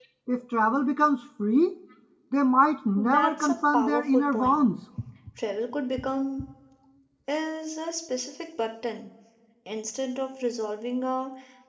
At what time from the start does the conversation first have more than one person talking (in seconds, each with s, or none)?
3.1 s